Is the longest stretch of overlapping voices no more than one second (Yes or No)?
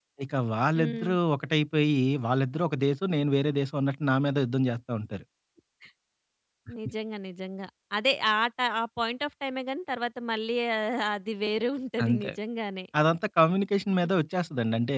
Yes